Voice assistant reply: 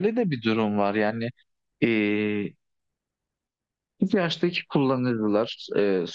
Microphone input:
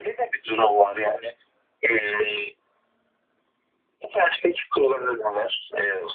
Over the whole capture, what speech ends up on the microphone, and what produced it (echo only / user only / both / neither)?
echo only